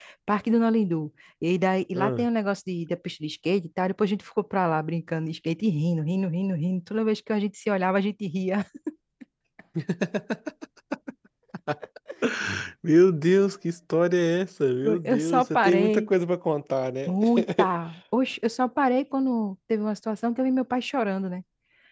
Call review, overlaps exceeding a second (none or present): present